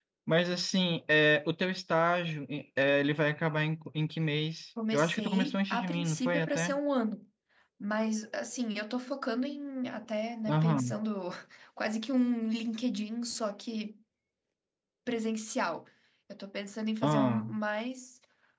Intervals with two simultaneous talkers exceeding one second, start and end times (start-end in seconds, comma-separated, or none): 4.9-6.8